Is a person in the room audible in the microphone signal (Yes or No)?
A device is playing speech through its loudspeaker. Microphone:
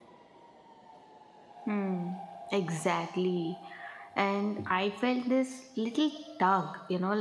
Yes